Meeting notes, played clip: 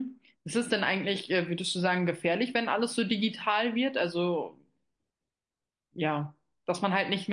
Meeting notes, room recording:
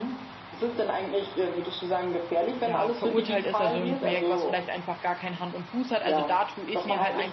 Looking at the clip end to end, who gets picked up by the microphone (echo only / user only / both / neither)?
both